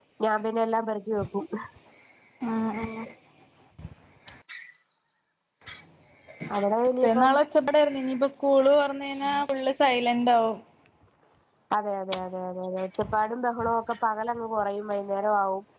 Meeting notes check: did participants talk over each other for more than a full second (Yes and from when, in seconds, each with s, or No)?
No